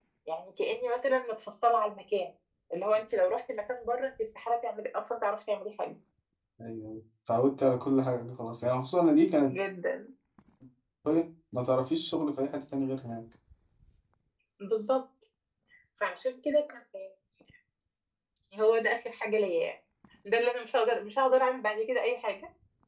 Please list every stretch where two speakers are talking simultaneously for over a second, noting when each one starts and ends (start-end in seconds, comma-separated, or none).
none